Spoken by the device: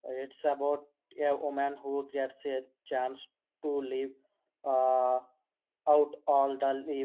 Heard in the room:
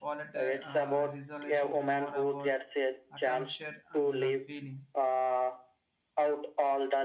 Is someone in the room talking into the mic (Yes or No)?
Yes